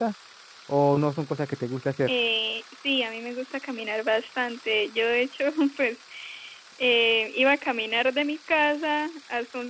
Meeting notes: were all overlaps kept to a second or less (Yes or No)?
Yes